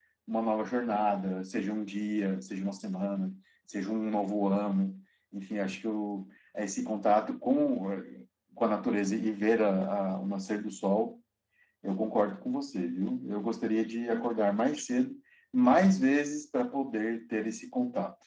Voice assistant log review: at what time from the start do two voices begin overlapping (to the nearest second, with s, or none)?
none